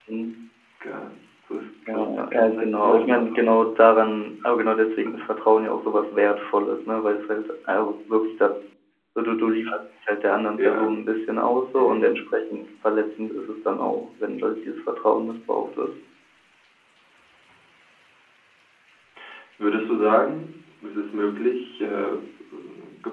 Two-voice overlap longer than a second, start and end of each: 1.9-3.6

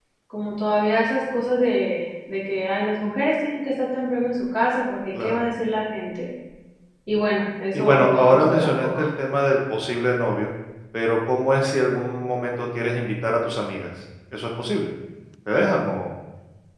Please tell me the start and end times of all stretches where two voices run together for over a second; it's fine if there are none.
7.7-9.0

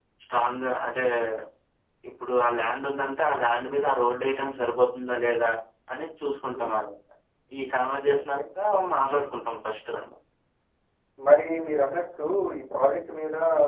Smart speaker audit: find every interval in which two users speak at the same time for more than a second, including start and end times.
none

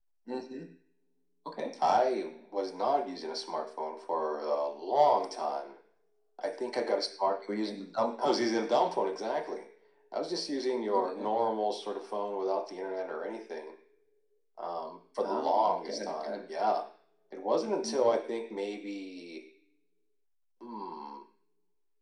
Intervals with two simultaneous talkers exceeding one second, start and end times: 15.2-16.5

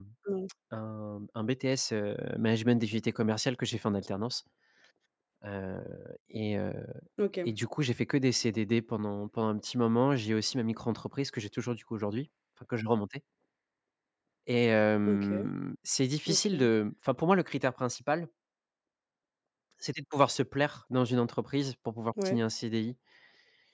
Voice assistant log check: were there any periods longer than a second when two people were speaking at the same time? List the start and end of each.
none

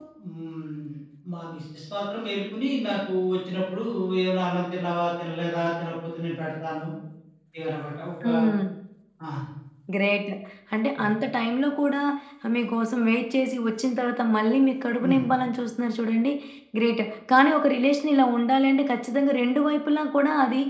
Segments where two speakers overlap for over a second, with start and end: none

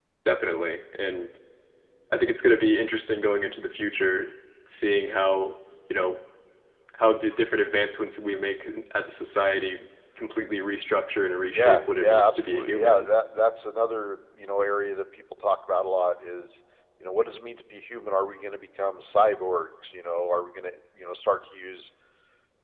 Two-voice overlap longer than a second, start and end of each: 11.5-13.1

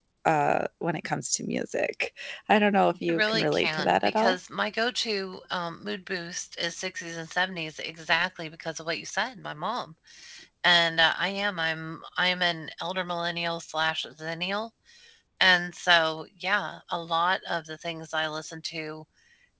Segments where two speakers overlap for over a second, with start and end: 3.1-4.4

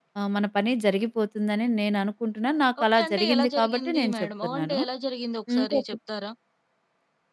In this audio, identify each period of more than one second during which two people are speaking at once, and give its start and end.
2.8-4.8

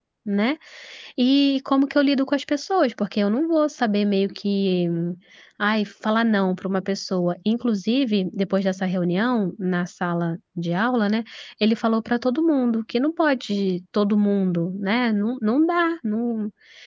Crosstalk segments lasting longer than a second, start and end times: none

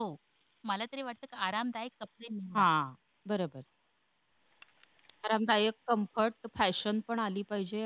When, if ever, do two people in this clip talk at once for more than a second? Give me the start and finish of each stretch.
none

